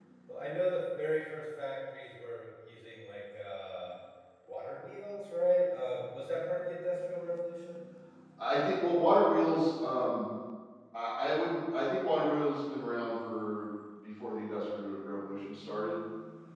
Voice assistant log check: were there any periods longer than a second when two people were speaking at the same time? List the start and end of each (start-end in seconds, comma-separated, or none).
none